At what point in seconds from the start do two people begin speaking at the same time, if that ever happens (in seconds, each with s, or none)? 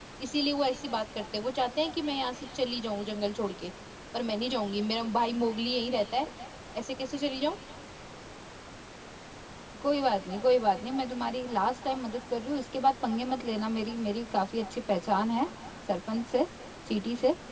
none